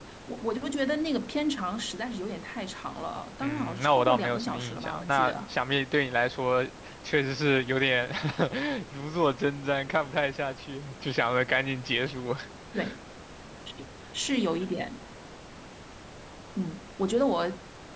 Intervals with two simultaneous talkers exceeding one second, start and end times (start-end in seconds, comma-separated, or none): 3.4-5.5